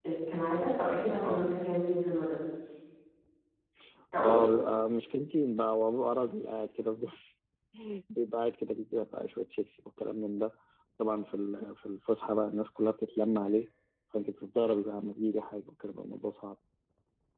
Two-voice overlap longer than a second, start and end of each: none

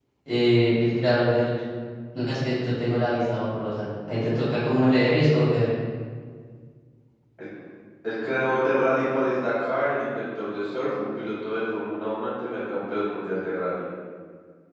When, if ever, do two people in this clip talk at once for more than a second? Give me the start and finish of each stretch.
none

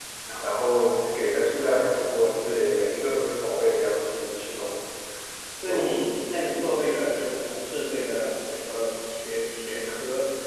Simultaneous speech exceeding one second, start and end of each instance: none

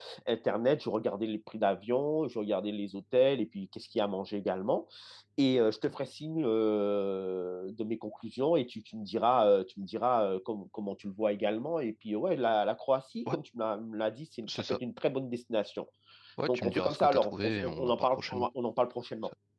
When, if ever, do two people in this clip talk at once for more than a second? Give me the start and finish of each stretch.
16.5-18.5

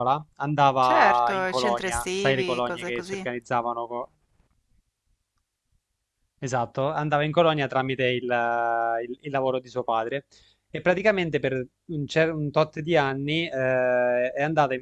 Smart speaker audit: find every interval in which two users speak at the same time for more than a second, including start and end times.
0.8-3.3

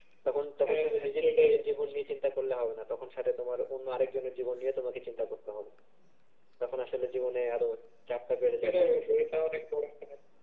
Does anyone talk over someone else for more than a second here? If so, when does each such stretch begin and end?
0.7-2.0

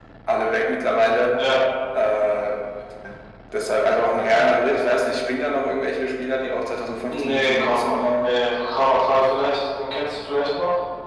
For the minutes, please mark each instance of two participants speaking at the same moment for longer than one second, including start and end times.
7.1-8.3

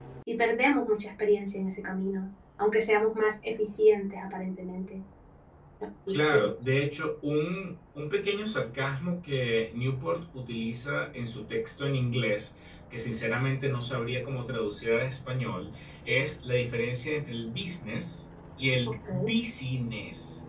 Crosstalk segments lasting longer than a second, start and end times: none

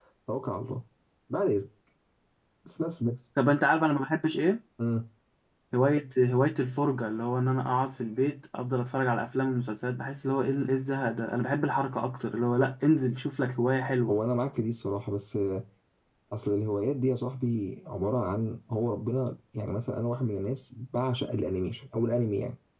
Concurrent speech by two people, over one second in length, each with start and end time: none

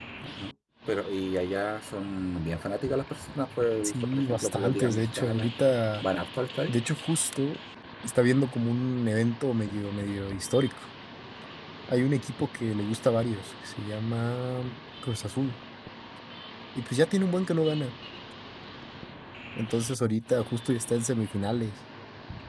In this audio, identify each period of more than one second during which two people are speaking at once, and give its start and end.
3.8-5.5

